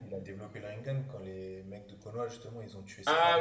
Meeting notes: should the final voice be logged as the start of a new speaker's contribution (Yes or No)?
Yes